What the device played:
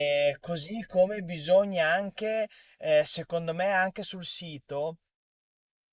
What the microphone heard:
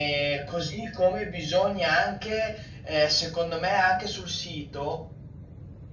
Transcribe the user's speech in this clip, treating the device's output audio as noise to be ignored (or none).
none